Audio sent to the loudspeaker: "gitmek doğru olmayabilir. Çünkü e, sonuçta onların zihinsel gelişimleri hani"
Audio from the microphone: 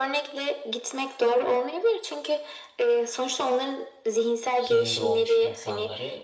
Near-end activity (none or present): present